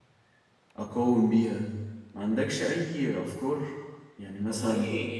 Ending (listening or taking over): taking over